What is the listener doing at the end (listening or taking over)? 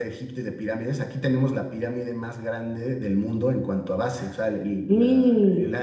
listening